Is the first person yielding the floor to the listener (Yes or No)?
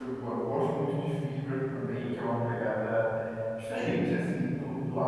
No